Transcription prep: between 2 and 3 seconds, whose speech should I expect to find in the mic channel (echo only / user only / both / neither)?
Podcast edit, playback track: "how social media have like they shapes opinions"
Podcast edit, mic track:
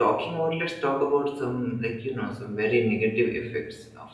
user only